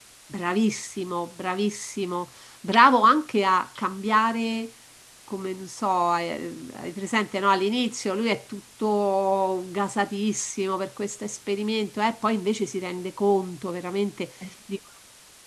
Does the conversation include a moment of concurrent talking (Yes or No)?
No